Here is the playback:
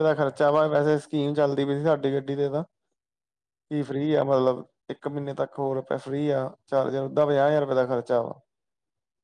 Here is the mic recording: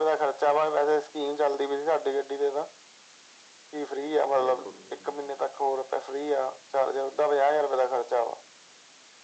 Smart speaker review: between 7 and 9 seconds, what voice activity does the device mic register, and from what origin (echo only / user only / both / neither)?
echo only